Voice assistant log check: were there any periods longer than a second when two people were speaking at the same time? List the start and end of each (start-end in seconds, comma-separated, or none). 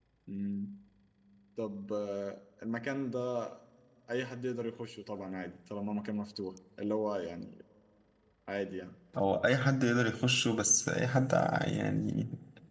none